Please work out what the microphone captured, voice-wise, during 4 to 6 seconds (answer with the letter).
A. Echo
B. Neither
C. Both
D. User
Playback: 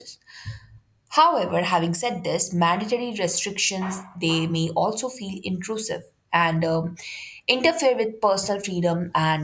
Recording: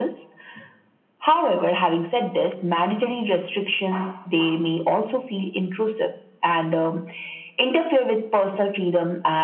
A